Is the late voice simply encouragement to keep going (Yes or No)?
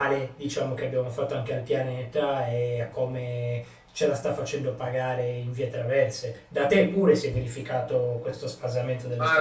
No